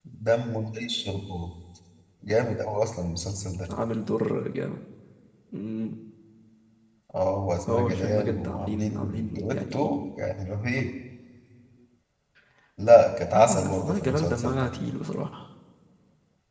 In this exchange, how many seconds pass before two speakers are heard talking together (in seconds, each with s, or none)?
7.7 s